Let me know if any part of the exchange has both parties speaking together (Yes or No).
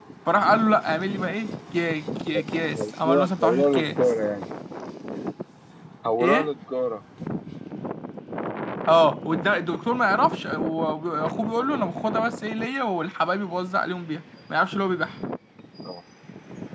Yes